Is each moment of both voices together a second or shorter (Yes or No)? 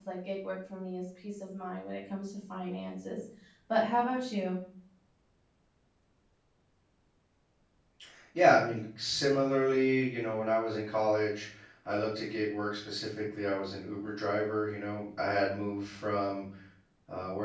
Yes